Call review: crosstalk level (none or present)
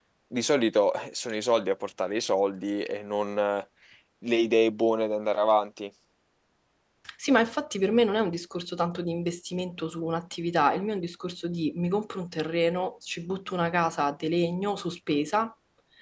none